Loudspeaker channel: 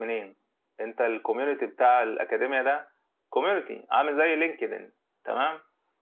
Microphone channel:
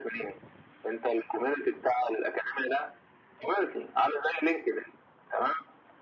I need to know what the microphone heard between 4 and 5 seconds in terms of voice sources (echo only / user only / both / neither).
echo only